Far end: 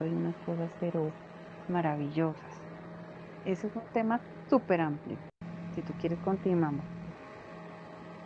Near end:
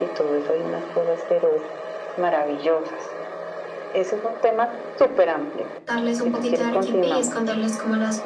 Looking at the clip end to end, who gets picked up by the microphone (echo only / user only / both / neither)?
both